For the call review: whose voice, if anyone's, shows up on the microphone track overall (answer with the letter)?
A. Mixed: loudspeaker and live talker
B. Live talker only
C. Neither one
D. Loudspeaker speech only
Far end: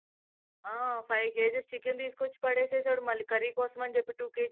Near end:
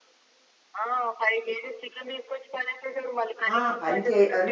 A